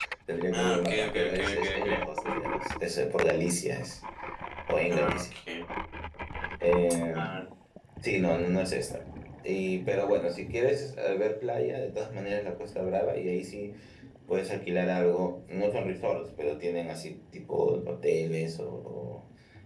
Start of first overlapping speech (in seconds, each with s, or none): 0.5 s